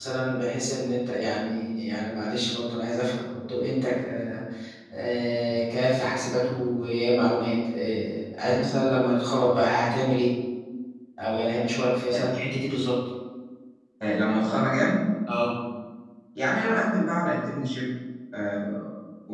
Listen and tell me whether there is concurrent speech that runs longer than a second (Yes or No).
No